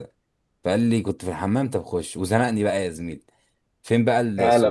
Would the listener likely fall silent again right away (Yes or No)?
Yes